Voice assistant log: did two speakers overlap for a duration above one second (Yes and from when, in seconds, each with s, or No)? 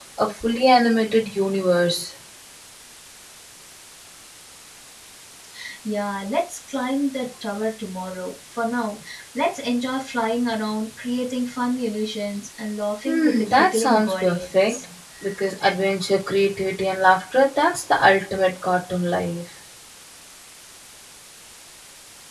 Yes, from 13.0 s